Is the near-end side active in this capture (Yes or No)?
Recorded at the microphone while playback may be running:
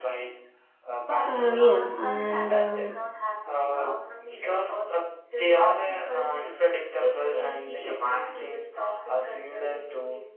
Yes